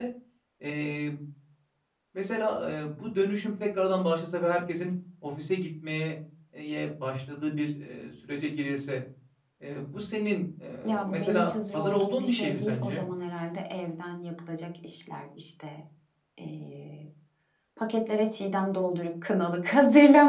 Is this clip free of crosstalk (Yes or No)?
No